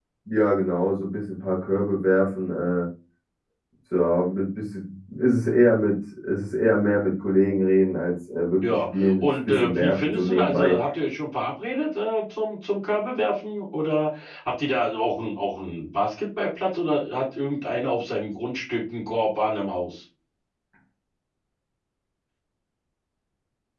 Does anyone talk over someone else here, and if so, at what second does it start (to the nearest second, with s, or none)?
9 s